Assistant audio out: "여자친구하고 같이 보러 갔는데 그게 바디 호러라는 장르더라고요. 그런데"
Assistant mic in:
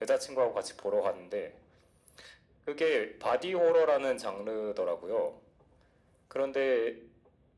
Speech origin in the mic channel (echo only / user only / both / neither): echo only